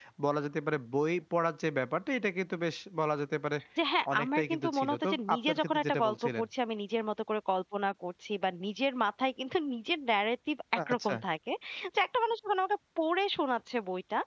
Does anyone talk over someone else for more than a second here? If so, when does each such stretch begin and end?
4.1-6.4

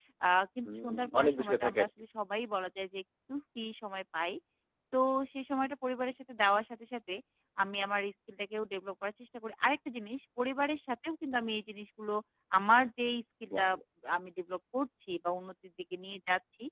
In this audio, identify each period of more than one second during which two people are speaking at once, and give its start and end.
0.6-1.9

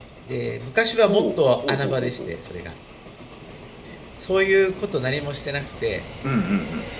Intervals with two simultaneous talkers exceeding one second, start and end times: 1.1-2.3

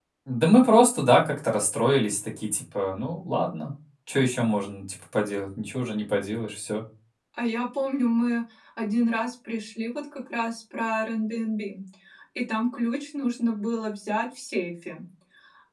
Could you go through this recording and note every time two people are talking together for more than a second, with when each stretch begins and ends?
none

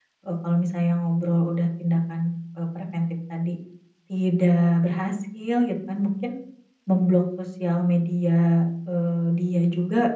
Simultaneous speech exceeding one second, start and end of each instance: none

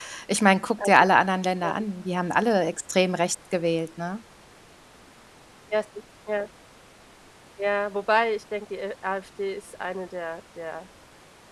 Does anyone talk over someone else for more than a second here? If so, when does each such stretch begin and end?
none

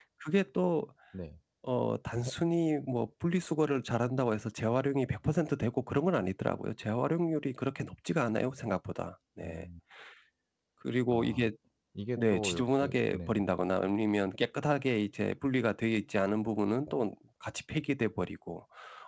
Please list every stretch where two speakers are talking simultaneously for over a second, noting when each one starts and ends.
12.2-13.4

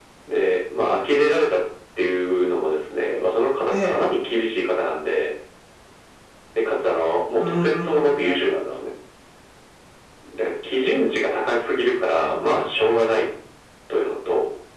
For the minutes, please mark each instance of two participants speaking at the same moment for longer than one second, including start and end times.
7.4-8.8

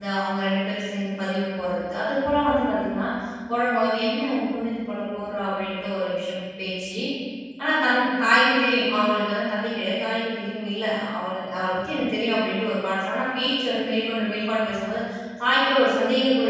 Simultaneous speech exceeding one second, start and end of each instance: none

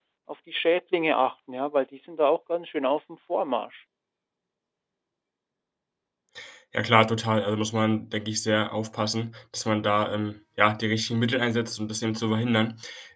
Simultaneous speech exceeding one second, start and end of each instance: none

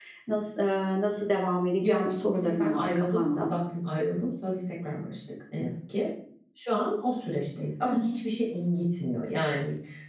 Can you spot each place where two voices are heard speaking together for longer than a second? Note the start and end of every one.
1.8-3.5

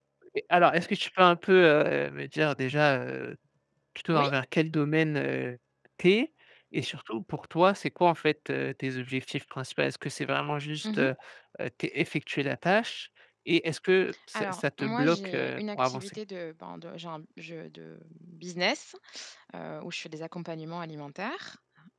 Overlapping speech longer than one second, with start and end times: 14.4-16.2

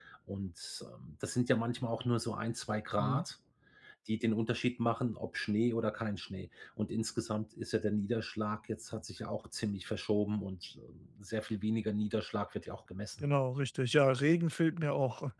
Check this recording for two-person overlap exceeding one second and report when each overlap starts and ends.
none

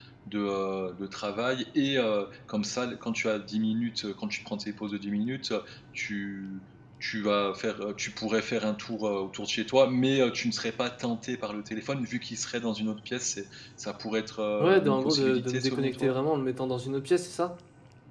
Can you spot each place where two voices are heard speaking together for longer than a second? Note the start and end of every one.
14.6-16.1

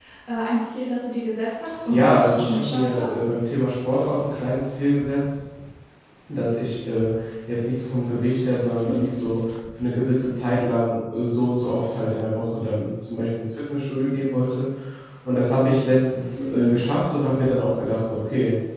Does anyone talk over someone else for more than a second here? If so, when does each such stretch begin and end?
1.9-3.1

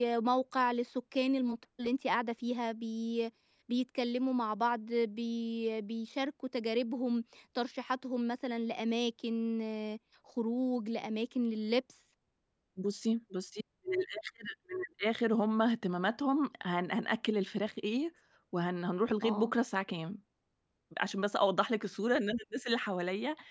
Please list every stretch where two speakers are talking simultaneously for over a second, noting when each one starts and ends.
none

